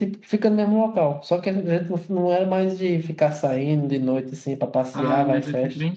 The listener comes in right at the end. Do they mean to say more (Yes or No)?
Yes